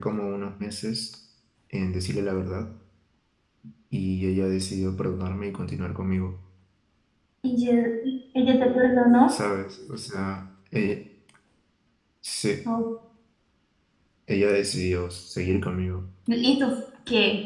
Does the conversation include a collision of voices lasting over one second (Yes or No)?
No